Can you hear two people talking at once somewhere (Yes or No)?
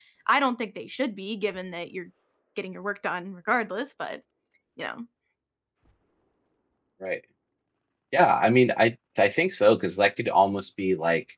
No